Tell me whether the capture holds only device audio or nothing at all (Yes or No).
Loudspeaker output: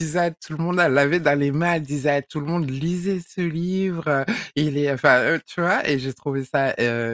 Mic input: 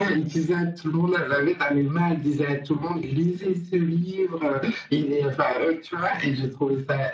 Yes